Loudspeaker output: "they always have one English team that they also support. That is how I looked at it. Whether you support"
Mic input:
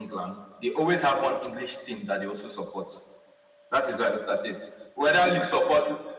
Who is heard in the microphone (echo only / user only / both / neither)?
echo only